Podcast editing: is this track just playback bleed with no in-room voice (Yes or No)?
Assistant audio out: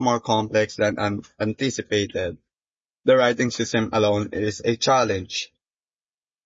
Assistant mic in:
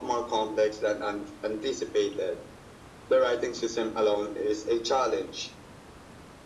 Yes